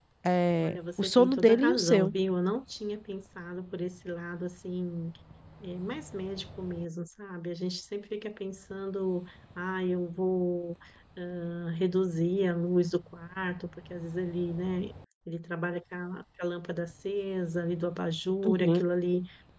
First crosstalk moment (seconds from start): 0.6 s

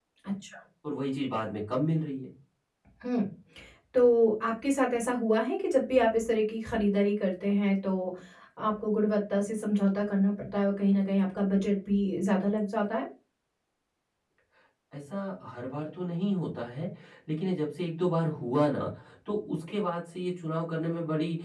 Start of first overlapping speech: none

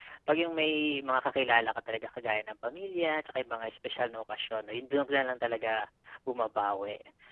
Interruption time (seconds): none

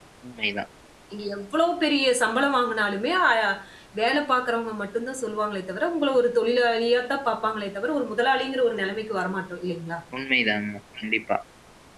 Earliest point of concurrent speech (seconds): none

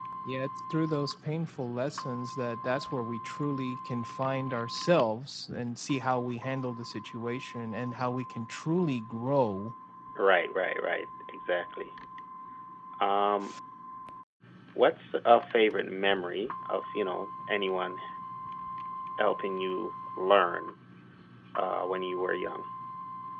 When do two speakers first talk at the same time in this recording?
none

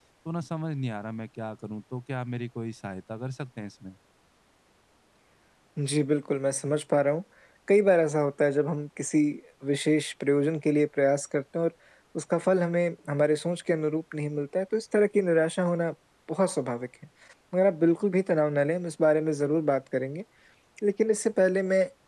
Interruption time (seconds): none

